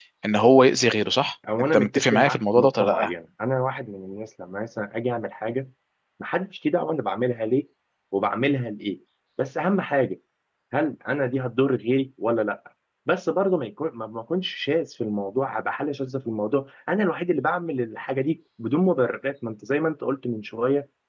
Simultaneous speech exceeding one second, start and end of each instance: 1.7-3.1

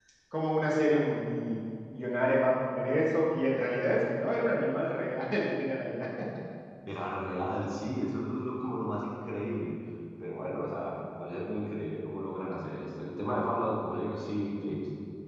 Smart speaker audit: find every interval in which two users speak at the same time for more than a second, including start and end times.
none

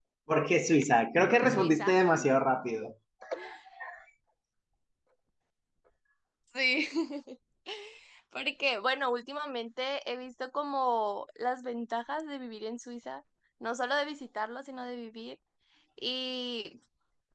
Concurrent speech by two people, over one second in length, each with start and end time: none

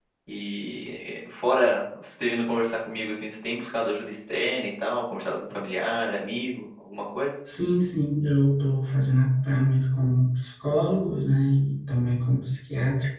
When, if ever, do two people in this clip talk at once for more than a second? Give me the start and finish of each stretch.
none

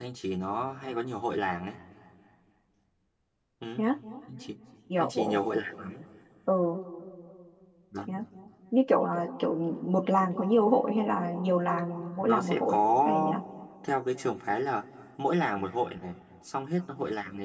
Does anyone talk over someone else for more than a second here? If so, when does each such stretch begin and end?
12.2-13.3

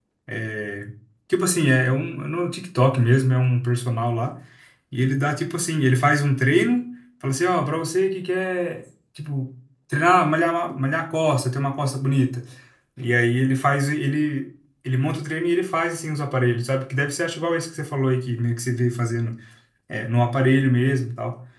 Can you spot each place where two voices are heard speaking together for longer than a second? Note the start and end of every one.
none

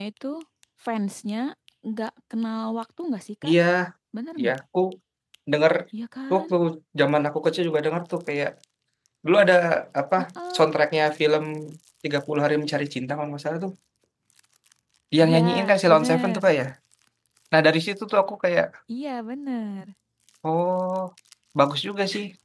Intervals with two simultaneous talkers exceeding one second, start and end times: 15.2-16.4

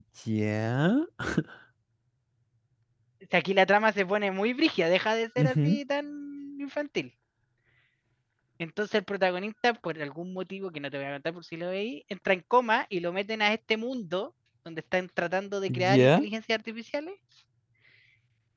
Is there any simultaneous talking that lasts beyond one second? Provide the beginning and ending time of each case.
none

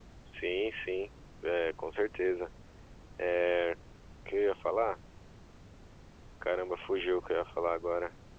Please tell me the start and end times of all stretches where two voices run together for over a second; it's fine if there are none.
none

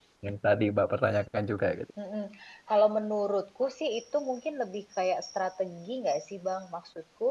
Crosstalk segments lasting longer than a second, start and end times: none

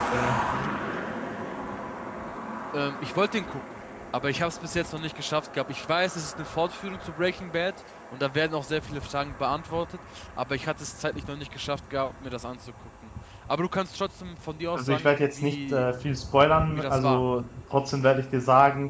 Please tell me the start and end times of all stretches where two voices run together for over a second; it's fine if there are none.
14.8-16.0

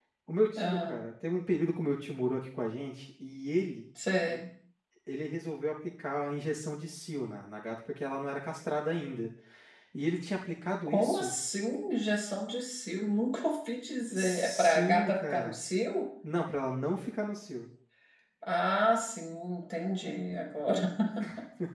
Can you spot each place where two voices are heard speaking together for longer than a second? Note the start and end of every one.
14.1-15.6

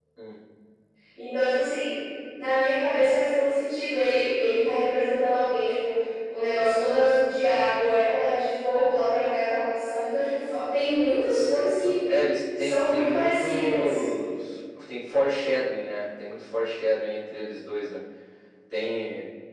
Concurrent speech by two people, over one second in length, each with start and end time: 12.6-14.0

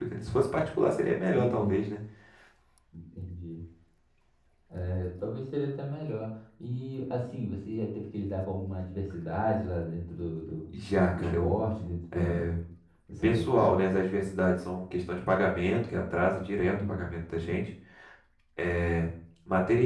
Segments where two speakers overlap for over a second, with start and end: none

